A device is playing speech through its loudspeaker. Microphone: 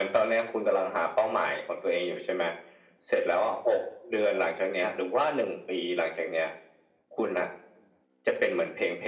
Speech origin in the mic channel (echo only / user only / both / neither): echo only